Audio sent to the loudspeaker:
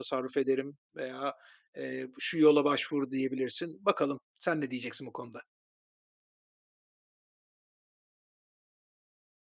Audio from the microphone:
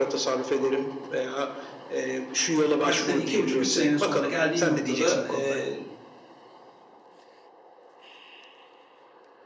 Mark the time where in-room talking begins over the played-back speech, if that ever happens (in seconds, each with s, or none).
2.8 s